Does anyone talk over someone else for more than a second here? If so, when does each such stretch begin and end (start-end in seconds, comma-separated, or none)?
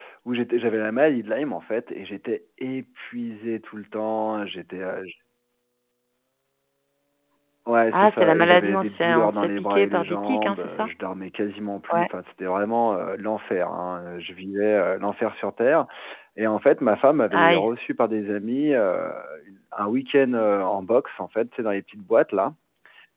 7.9-10.9